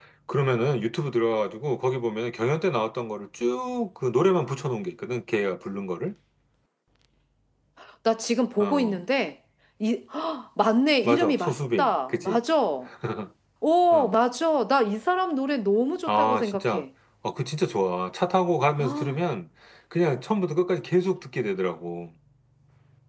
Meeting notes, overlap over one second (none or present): present